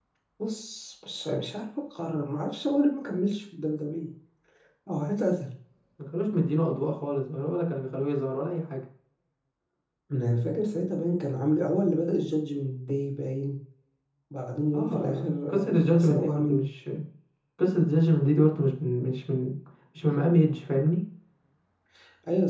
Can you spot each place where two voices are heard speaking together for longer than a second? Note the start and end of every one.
14.7-16.6

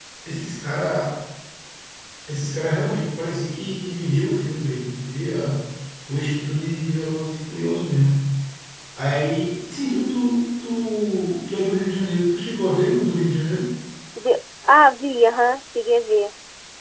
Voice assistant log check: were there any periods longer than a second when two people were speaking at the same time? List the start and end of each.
none

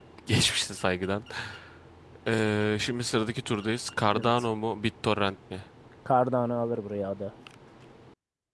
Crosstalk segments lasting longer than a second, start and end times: none

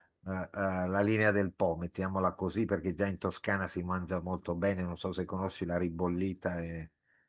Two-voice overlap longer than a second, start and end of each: none

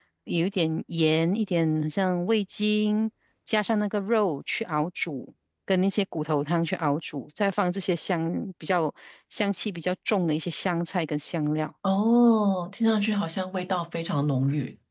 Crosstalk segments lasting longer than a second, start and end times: none

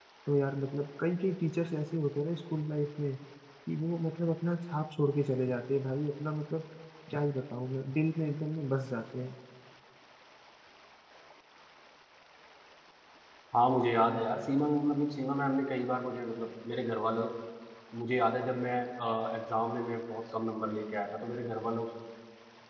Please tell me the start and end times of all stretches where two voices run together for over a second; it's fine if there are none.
none

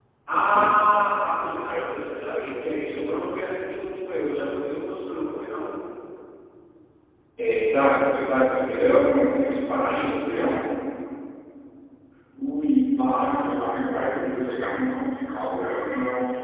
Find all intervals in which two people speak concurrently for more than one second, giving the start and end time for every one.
none

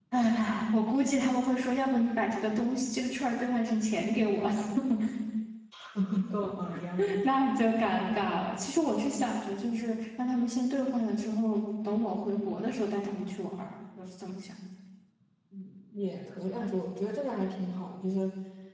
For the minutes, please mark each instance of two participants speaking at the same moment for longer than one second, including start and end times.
none

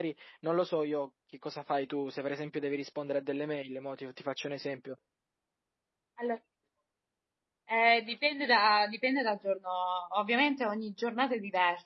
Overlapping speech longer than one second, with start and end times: none

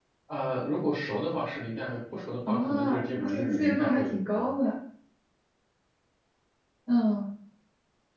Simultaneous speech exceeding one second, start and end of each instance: 2.5-4.1

